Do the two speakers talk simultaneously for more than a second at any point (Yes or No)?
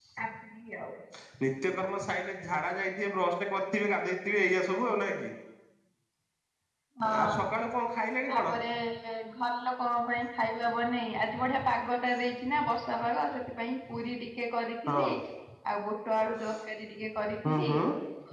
No